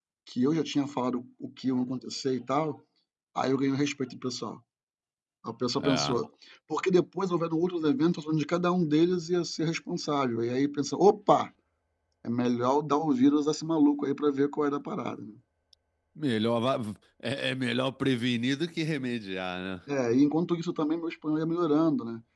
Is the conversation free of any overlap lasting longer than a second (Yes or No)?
Yes